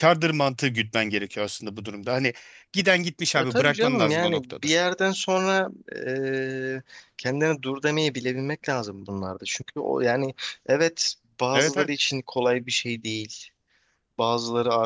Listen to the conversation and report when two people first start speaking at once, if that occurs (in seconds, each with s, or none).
3.4 s